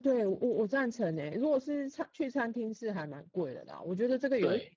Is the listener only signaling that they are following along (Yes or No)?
Yes